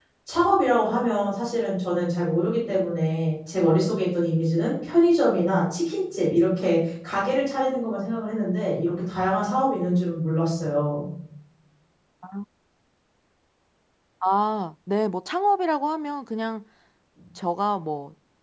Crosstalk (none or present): none